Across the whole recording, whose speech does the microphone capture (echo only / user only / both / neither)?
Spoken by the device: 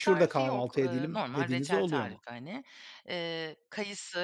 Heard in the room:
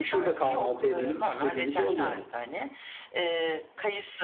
echo only